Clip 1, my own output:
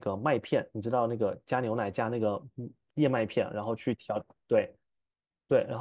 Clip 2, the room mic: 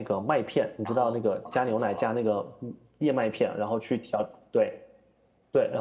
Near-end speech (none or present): present